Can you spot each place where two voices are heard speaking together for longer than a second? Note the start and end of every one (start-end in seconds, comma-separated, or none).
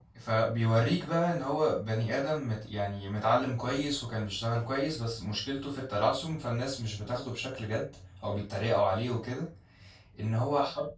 none